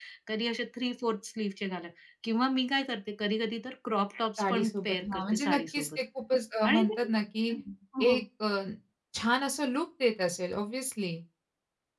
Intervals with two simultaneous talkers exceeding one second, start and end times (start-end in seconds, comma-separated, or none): 4.4-6.0